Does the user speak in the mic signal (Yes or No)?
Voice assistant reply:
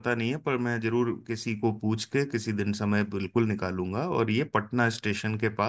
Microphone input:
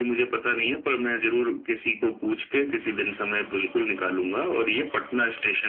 No